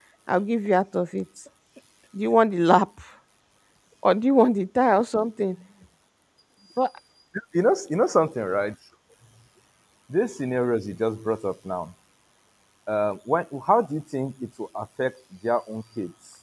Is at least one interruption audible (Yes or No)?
No